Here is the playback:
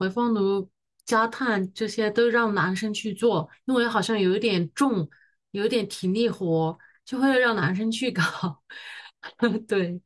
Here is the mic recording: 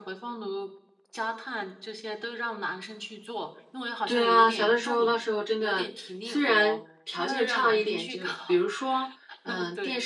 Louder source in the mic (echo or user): user